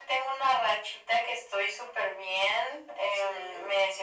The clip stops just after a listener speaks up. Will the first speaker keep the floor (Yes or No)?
Yes